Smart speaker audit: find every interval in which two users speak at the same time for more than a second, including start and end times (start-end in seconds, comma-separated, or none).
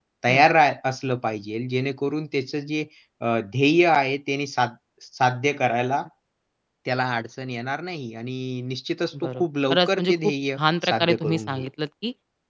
9.1-11.7